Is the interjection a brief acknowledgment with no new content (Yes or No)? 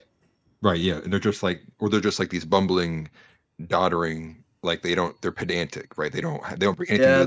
No